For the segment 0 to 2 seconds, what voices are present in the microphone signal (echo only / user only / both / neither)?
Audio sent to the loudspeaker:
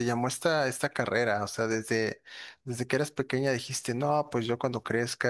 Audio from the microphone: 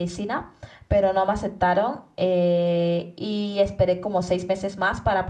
user only